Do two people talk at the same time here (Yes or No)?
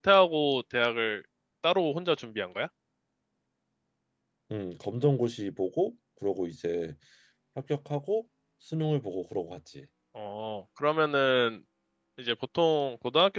No